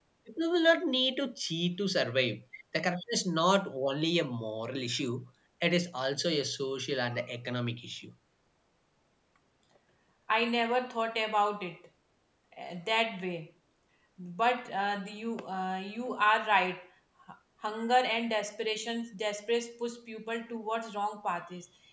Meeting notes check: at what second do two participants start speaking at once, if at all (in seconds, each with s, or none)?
none